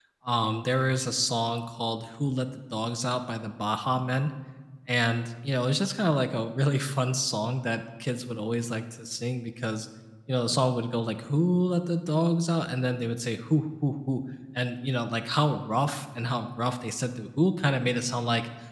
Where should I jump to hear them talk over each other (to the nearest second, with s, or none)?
none